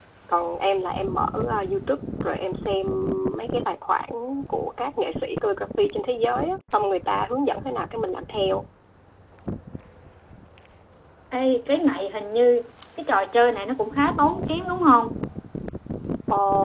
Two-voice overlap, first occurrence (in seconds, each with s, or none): none